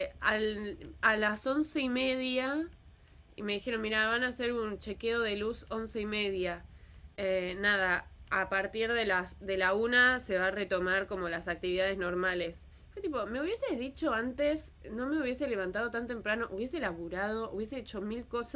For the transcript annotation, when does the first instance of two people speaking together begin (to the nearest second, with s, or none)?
none